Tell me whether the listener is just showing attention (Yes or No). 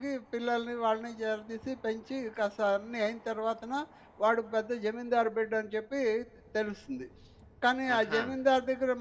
Yes